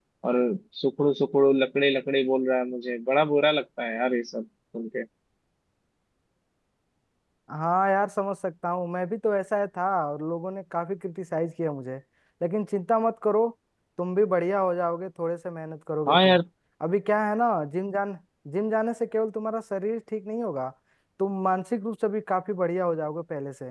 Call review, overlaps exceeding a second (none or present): none